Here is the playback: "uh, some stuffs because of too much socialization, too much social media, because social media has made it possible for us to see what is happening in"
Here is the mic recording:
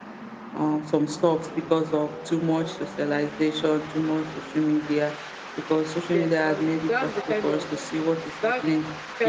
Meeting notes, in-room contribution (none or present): present